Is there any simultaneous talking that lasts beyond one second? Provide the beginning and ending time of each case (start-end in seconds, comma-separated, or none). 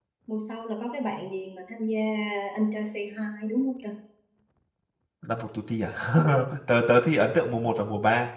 none